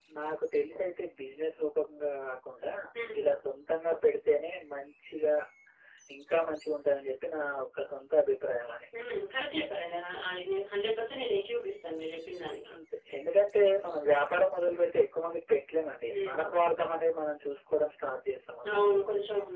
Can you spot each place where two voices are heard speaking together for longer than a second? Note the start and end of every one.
none

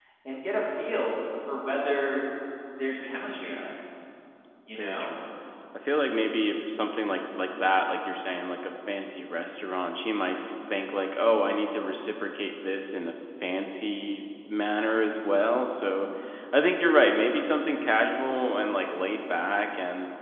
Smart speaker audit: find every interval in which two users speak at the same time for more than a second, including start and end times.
none

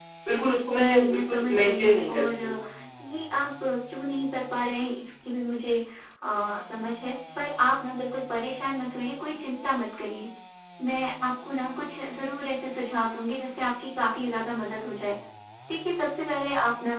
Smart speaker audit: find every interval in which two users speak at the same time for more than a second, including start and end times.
0.8-2.5

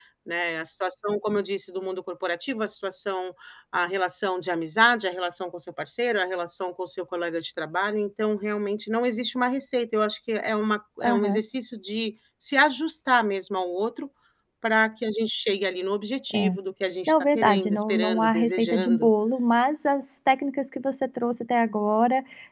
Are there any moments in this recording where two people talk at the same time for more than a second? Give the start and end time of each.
17.1-19.1

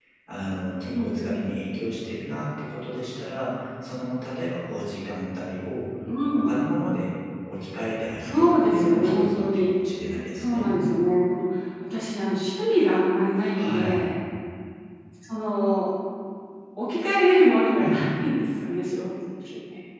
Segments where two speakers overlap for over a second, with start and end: 8.2-9.7

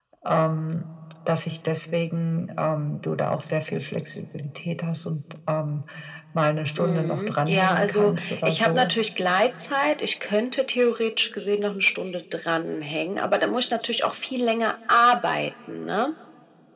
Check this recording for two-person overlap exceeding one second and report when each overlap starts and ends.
6.8-8.9

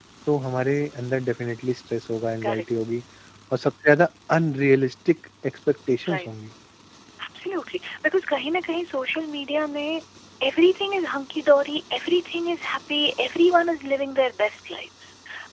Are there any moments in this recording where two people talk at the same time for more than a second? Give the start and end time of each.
none

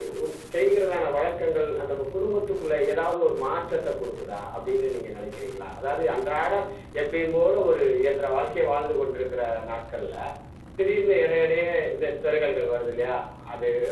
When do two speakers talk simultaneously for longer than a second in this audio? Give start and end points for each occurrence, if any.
none

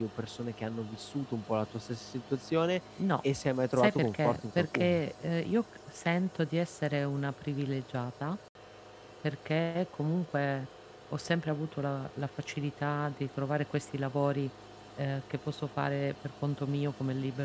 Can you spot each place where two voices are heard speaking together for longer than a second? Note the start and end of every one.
3.8-5.0

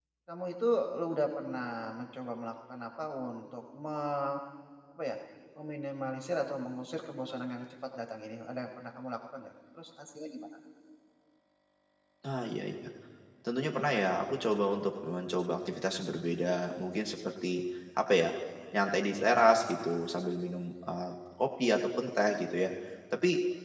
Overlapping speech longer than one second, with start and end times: none

